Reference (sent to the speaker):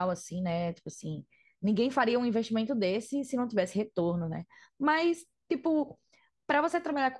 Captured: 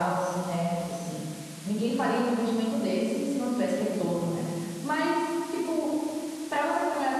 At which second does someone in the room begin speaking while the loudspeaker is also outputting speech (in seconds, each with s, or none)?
none